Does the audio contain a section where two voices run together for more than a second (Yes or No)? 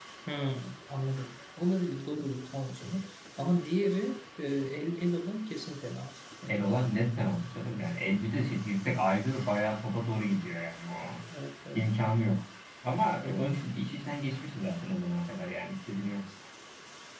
No